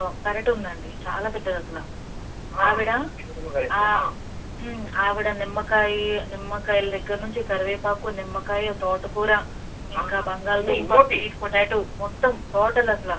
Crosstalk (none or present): present